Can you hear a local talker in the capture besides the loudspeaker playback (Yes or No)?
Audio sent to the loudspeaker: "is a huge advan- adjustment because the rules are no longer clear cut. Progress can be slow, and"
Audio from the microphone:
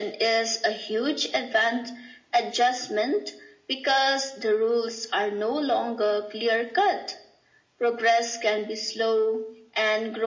No